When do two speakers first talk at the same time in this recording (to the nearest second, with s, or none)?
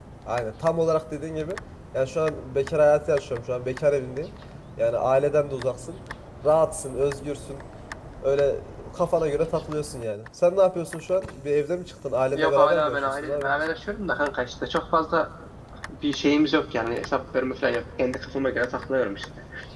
12 s